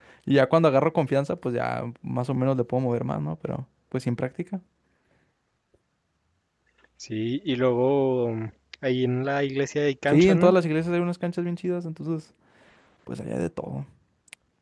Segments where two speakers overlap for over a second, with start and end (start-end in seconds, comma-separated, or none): none